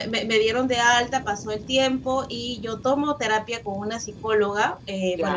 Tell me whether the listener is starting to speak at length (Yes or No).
No